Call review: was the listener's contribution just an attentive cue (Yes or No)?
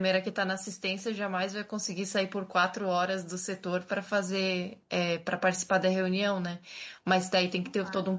Yes